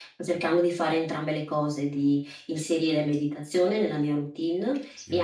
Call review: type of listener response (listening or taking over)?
listening